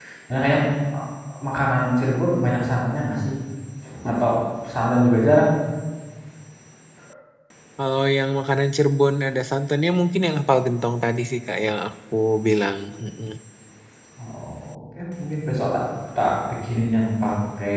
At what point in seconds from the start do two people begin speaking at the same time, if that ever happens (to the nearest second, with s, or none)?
none